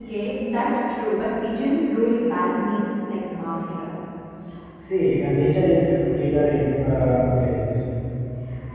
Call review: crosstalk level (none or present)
none